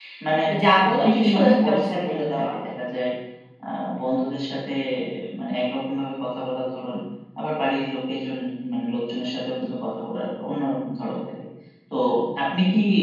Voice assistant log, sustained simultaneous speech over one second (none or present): present